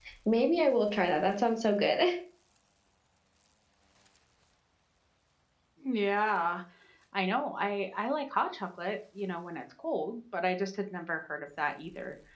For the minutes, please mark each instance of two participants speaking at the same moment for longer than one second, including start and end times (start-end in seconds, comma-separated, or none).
none